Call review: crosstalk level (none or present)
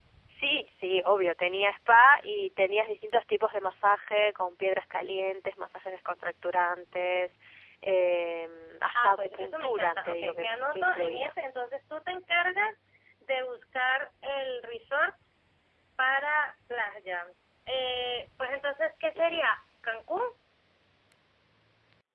present